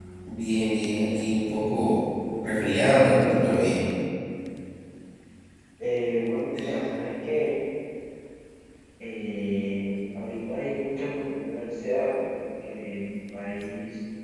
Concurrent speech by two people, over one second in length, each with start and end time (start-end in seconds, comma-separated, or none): none